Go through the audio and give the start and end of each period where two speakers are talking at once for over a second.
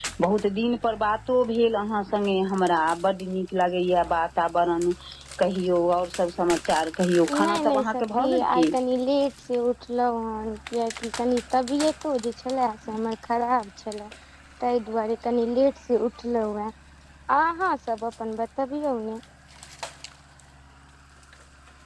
7.3-8.7

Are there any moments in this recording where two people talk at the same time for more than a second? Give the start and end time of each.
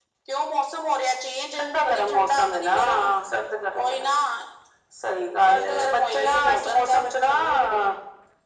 1.6-3.1, 5.5-7.3

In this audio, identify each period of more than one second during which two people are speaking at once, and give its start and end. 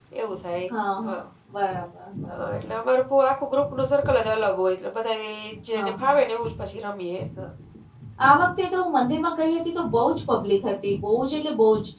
none

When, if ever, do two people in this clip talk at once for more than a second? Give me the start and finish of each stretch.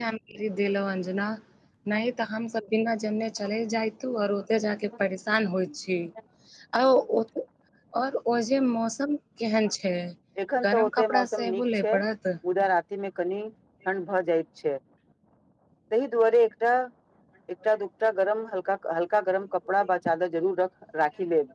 10.7-11.9

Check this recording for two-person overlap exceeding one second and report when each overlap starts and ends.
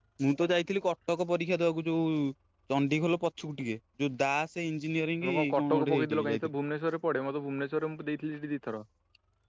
5.2-6.5

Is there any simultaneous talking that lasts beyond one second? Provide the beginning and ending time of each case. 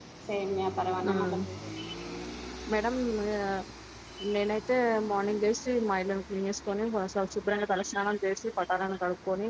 none

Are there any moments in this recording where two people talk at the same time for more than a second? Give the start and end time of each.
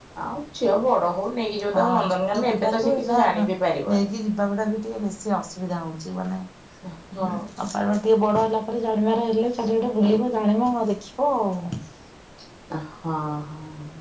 1.8-3.2

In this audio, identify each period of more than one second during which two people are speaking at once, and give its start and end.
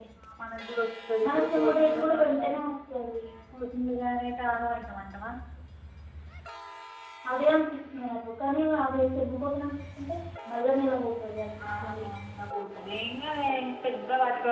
1.2-2.7

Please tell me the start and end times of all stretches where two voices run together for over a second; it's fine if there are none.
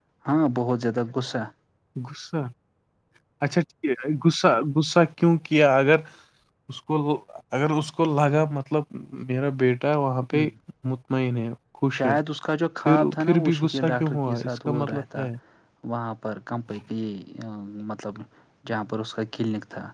13.1-15.2

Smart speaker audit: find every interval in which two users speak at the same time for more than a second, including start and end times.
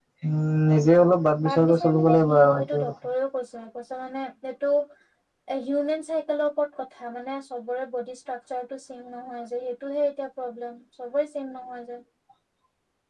1.4-2.9

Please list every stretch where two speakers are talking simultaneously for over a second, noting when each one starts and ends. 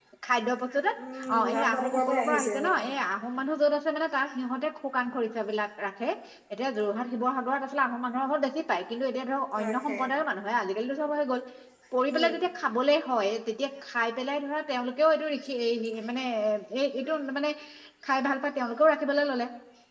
1.4-2.8

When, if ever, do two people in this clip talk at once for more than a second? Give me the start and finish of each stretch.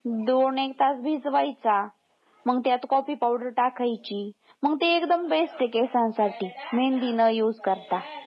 none

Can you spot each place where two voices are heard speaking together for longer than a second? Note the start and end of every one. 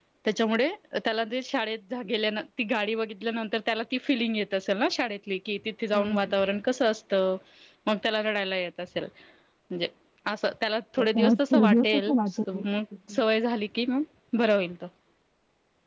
11.0-12.6

